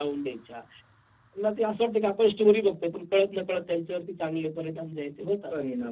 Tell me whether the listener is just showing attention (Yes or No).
No